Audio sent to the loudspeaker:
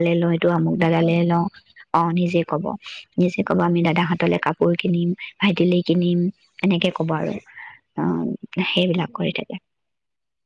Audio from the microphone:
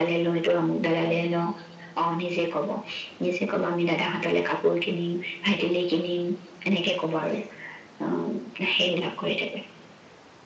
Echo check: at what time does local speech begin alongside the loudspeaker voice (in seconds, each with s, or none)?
none